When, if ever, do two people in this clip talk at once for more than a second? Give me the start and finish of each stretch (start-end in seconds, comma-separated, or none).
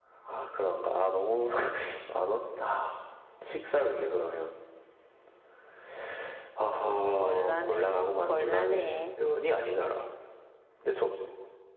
7.2-9.0